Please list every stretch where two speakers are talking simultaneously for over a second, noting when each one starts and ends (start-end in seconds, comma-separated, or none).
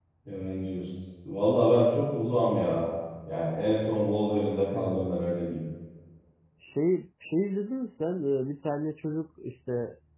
none